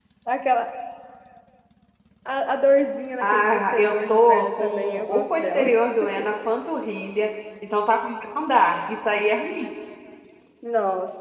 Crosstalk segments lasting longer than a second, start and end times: 3.2-5.8

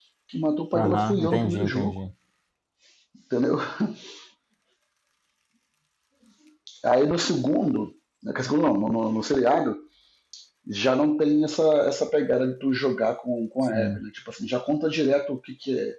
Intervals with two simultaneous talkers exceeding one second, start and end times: 0.7-2.0

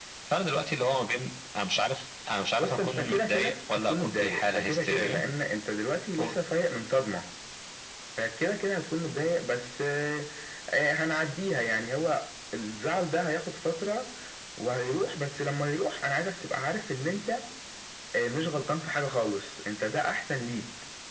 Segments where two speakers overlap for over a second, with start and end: 2.6-5.2

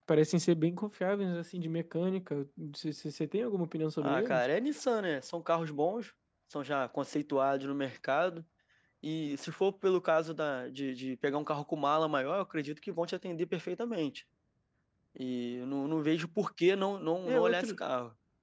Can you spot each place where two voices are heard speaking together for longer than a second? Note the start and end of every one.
none

